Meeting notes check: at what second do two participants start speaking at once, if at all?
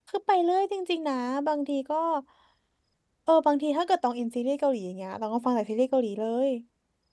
none

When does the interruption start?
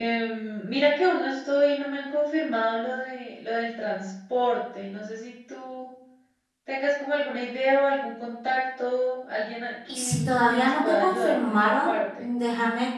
9.9 s

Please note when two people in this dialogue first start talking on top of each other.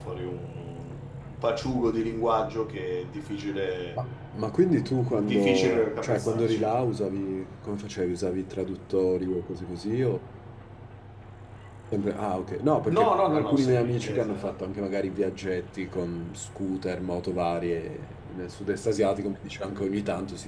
5.3 s

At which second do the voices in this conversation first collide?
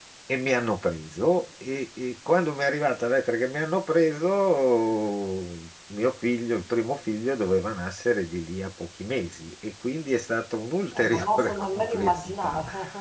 10.9 s

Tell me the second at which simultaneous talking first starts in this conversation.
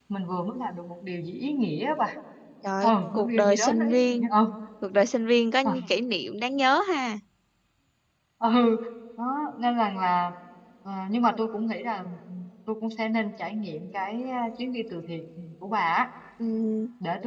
2.8 s

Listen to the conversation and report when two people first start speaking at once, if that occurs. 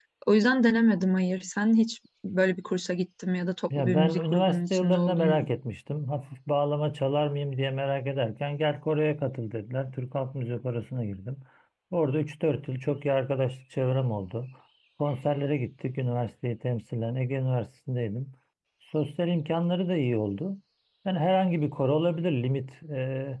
3.7 s

